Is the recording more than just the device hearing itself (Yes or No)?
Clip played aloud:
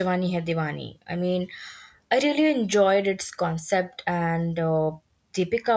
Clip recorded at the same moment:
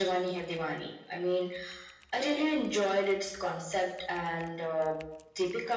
No